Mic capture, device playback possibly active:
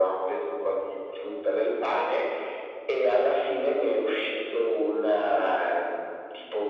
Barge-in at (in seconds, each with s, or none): none